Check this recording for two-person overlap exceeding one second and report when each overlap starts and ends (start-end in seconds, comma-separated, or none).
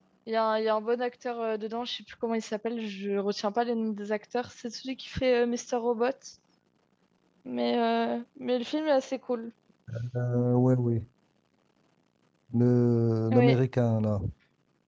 none